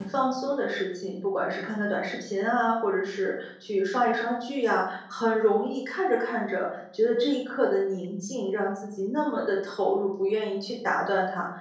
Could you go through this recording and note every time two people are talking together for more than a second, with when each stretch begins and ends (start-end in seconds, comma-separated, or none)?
none